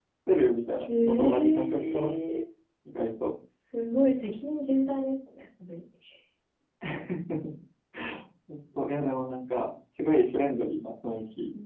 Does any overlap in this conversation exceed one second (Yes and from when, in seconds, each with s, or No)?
Yes, from 0.9 s